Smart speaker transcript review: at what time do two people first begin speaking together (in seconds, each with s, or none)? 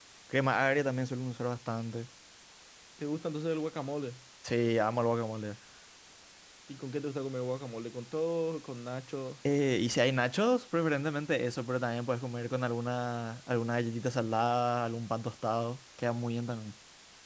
none